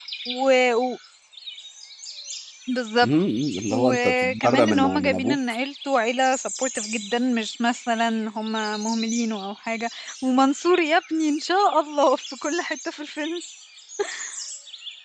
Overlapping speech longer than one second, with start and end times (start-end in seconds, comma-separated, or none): 3.7-5.4